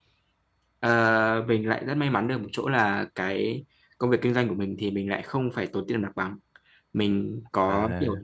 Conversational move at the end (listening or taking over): listening